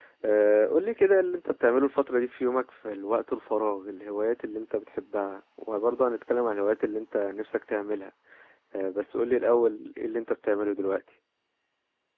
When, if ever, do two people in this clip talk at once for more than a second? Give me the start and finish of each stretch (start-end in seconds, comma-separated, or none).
none